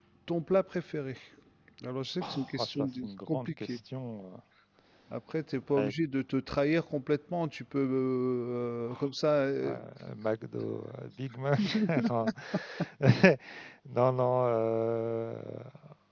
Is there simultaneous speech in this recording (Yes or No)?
Yes